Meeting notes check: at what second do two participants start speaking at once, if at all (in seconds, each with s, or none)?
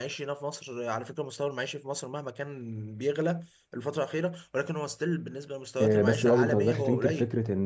5.8 s